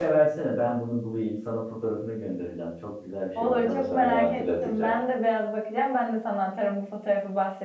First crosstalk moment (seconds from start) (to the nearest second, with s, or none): 3 s